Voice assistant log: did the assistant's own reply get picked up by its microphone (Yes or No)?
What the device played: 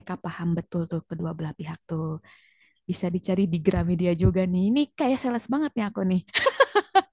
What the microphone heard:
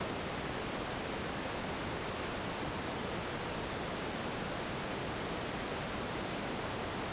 No